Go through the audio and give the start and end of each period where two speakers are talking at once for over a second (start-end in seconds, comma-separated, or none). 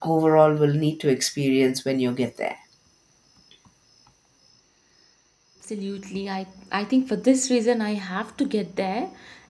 none